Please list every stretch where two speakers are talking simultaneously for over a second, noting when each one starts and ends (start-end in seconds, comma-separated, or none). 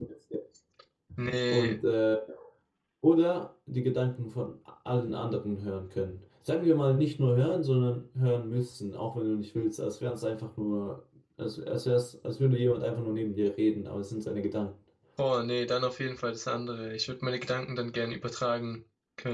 none